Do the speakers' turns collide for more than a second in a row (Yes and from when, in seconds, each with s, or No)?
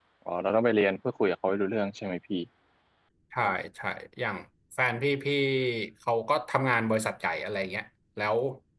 No